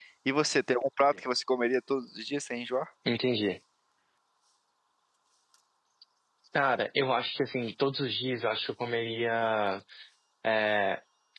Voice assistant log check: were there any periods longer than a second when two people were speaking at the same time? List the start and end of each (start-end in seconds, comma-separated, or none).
none